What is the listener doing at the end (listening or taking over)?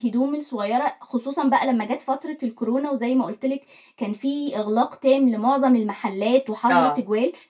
listening